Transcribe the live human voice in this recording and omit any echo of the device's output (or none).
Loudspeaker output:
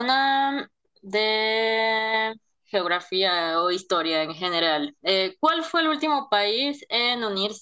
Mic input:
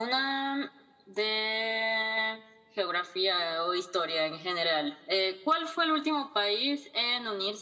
none